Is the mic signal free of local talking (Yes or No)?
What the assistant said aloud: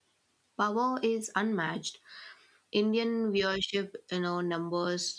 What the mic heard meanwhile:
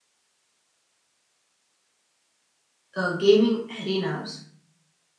No